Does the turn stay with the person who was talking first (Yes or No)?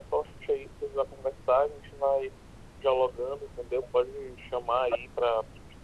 Yes